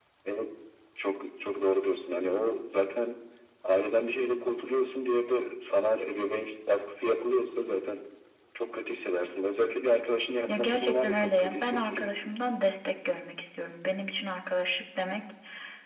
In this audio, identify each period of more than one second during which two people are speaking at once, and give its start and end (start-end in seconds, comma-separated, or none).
10.5-12.1